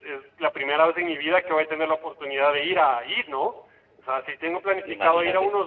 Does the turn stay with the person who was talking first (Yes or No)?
Yes